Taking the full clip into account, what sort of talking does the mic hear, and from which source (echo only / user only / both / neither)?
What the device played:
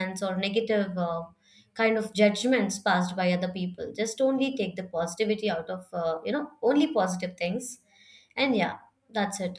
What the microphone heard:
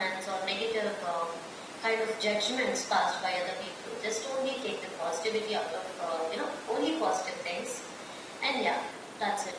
echo only